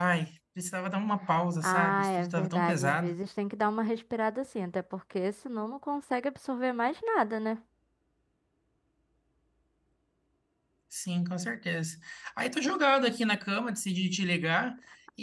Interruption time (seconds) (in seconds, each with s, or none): 1.6 s